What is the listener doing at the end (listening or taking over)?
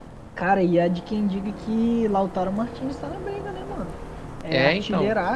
listening